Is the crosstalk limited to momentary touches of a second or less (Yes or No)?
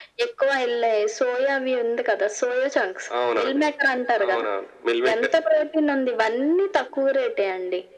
Yes